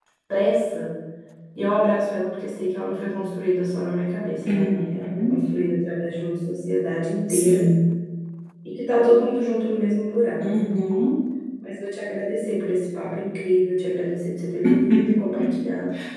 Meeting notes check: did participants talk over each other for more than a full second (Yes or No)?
No